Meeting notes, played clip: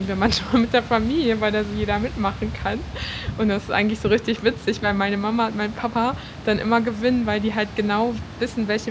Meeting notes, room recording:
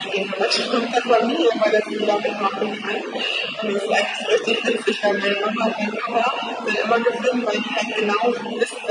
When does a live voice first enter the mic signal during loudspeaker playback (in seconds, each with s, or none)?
none